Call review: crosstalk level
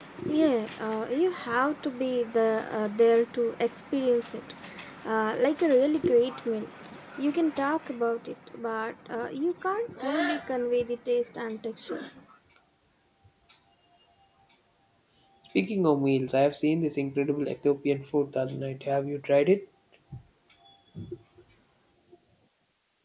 none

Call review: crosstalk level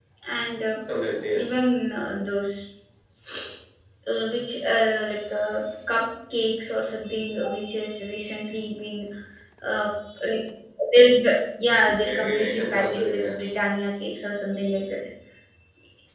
present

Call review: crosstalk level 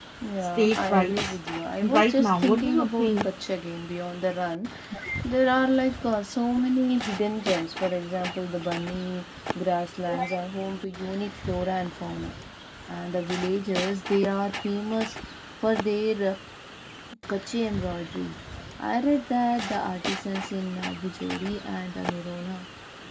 present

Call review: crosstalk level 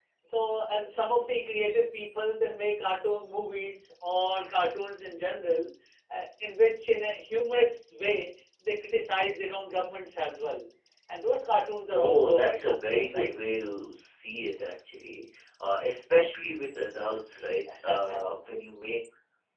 present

